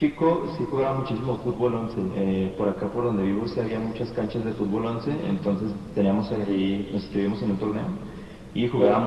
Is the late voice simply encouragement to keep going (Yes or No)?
Yes